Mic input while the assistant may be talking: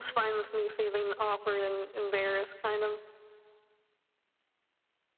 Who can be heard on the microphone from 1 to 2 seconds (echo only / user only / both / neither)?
echo only